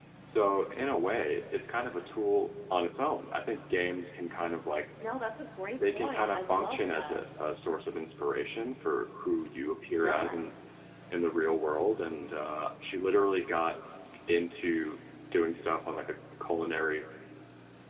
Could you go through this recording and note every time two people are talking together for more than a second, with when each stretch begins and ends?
5.9-7.2

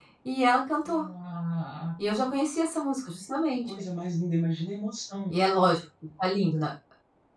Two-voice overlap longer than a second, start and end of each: none

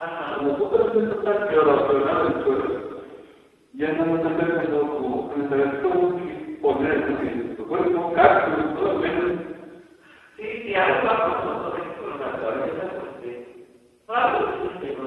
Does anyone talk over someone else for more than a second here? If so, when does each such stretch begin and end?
none

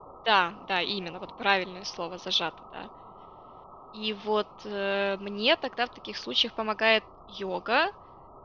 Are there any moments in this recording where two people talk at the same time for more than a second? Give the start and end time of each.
none

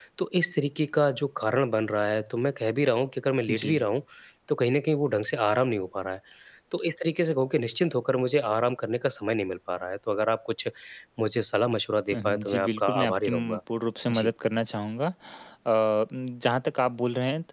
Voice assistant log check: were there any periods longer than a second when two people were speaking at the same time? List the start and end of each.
12.1-13.6

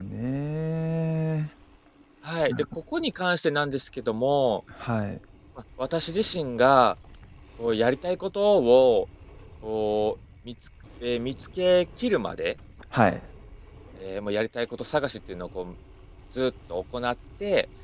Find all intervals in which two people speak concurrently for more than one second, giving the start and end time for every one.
none

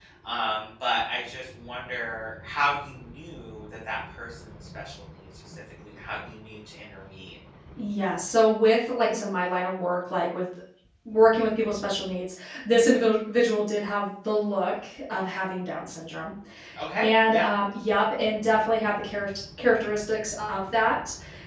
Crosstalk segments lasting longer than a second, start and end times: none

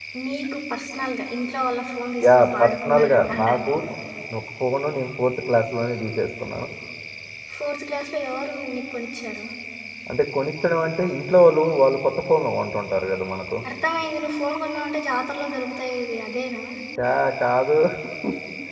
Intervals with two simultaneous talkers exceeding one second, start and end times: 2.2-3.7

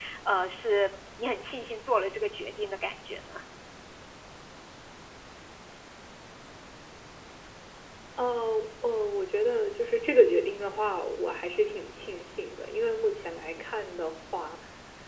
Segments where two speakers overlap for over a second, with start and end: none

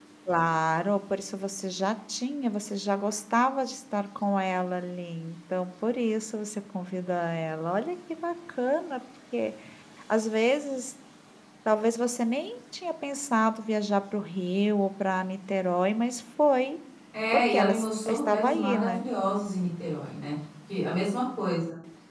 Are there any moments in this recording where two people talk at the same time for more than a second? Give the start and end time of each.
17.3-19.0

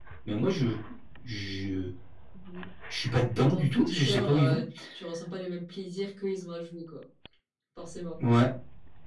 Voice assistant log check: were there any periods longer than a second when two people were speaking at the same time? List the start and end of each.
3.4-4.6

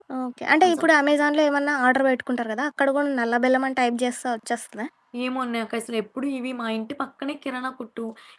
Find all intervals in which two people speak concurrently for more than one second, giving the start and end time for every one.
none

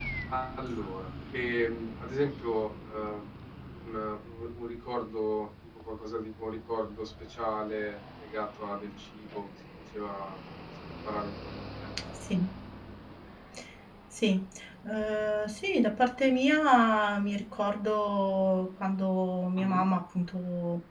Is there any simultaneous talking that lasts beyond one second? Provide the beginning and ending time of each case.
none

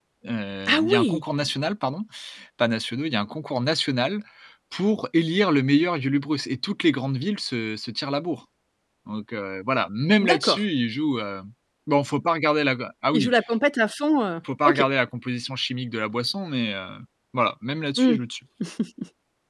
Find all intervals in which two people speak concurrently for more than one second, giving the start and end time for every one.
none

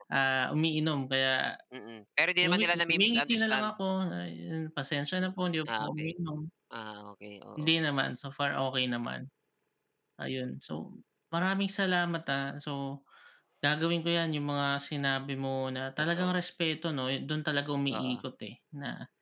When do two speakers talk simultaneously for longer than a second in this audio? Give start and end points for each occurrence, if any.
2.4-3.7

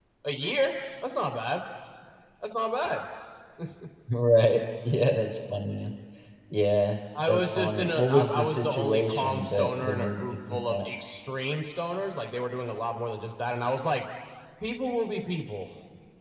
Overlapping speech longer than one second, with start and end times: 7.3-10.9

